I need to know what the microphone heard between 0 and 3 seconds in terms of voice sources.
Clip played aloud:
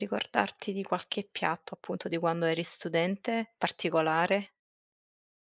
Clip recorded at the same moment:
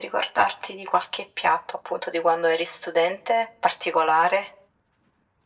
echo only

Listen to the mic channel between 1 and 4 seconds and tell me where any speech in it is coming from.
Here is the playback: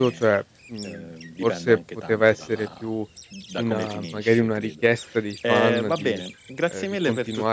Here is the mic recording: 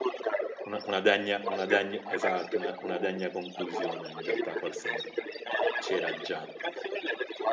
both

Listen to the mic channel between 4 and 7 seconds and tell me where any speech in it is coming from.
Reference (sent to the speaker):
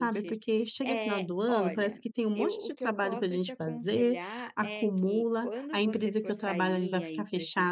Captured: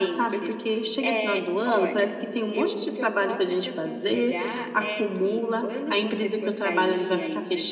echo only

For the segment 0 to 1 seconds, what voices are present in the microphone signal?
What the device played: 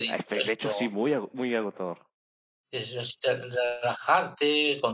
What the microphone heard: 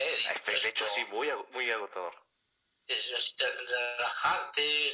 echo only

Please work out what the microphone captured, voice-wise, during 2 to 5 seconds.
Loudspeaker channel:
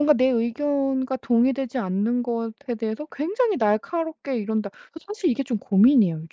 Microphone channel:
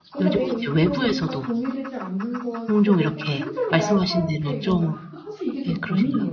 both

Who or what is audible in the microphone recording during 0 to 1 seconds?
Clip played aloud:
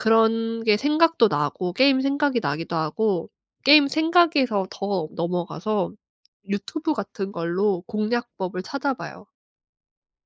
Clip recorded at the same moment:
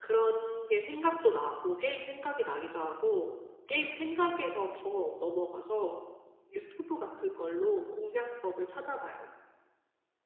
echo only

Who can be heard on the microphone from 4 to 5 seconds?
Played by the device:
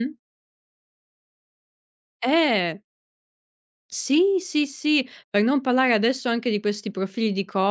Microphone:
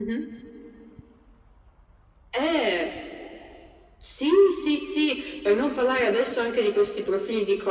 echo only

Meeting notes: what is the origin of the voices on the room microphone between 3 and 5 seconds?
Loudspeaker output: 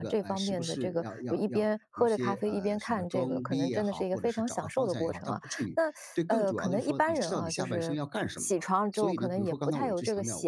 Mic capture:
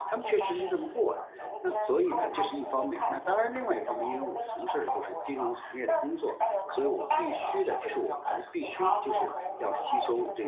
both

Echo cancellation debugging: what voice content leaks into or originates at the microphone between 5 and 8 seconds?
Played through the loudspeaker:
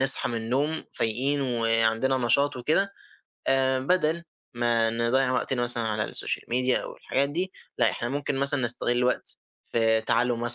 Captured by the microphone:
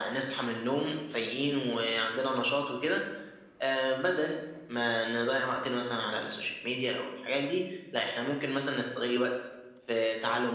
echo only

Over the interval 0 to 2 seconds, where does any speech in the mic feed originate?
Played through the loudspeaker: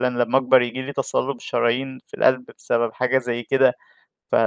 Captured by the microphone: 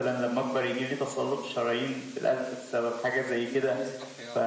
echo only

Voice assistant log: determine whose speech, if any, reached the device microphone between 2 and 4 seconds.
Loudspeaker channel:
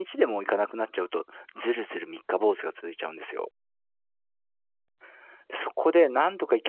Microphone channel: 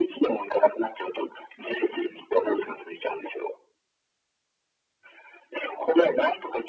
echo only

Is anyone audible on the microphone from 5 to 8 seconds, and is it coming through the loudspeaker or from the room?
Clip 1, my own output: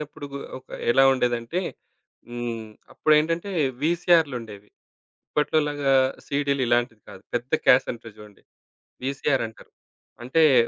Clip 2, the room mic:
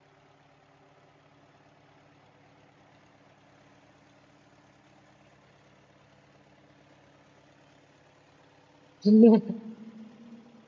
neither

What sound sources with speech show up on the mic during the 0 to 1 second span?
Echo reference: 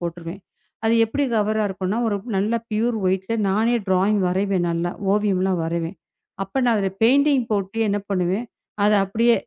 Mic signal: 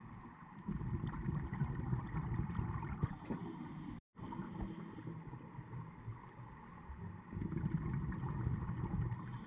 neither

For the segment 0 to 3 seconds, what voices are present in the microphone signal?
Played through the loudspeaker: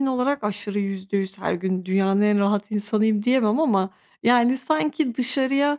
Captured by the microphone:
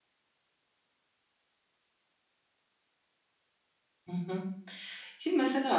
neither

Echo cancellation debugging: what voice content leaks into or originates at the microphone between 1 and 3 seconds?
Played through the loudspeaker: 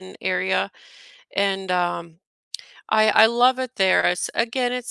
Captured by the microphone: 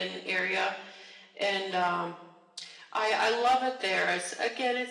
echo only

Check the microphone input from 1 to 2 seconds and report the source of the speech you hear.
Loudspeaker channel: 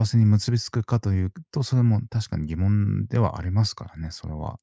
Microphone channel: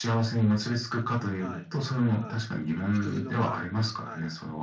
both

